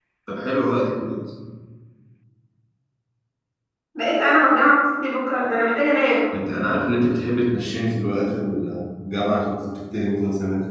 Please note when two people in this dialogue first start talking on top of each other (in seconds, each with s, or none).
none